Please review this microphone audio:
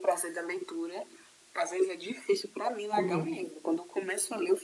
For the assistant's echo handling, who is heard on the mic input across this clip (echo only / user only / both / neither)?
both